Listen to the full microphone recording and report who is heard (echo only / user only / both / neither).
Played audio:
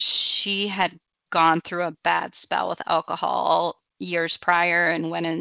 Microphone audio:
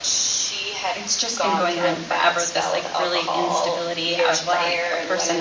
both